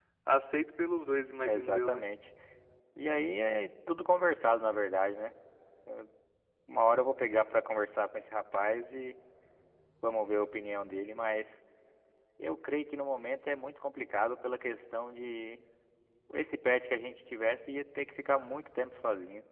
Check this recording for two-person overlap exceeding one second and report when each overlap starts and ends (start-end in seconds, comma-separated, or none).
none